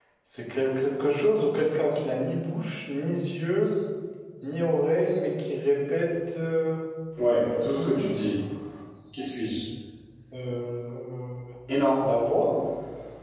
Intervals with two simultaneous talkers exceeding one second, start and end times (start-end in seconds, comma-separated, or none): none